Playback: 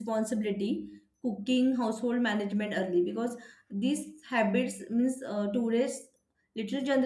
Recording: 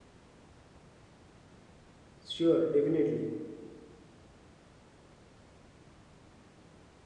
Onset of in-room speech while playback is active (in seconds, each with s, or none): 2.3 s